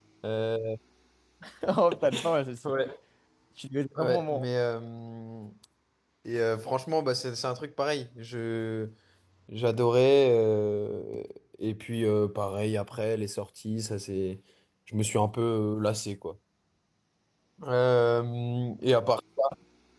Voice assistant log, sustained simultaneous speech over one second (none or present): none